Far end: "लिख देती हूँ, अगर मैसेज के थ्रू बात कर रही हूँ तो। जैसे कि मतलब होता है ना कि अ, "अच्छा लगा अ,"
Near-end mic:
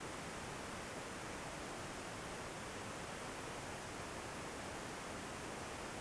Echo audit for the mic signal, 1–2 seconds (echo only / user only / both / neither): neither